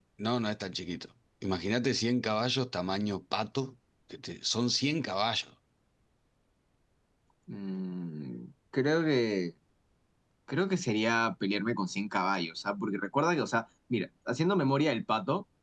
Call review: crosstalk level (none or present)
none